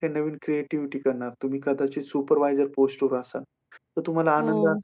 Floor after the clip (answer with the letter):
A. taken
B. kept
B